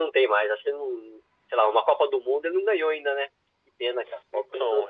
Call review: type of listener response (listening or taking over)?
taking over